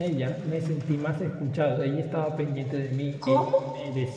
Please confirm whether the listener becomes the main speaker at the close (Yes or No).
No